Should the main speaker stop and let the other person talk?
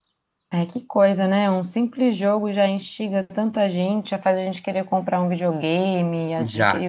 Yes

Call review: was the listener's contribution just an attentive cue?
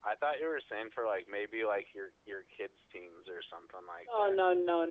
No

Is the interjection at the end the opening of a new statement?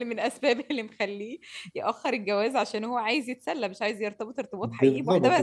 Yes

